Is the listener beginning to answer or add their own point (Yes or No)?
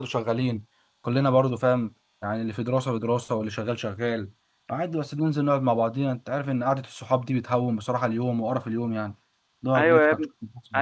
Yes